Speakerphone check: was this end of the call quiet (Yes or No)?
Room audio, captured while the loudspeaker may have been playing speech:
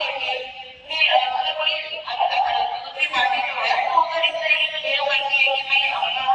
Yes